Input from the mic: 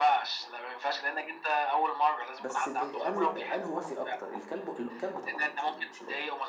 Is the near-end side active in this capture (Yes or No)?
Yes